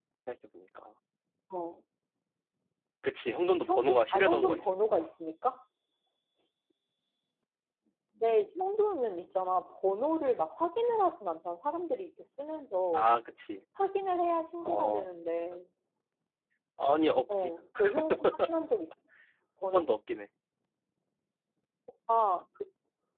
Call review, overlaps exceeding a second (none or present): present